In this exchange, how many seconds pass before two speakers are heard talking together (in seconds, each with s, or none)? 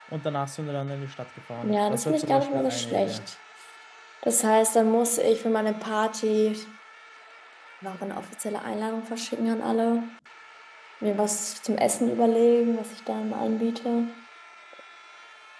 1.6 s